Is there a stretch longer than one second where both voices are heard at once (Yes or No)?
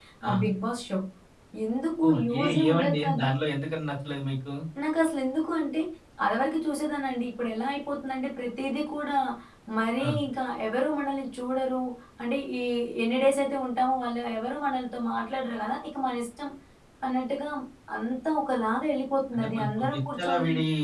Yes